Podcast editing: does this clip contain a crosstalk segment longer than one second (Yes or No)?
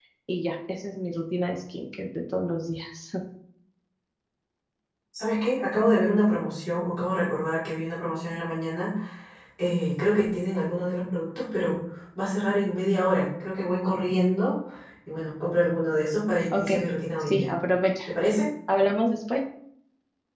No